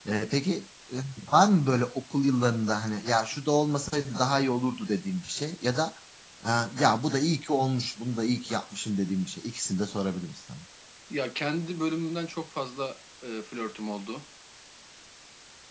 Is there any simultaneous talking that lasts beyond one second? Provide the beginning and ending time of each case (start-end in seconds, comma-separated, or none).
none